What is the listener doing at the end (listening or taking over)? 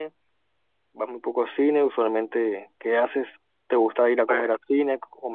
listening